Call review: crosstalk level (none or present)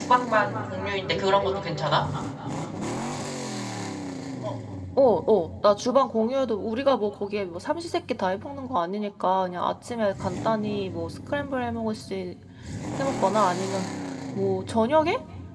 none